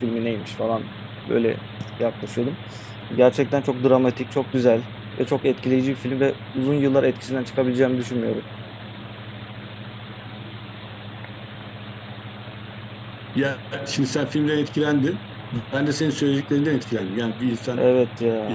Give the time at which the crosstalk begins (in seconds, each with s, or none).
none